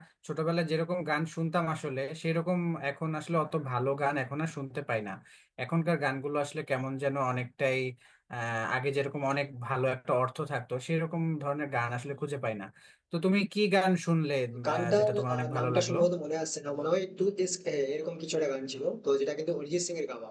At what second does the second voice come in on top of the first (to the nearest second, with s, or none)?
15 s